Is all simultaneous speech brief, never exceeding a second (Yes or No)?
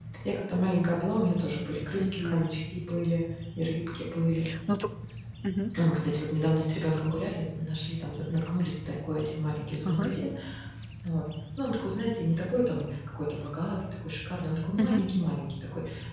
Yes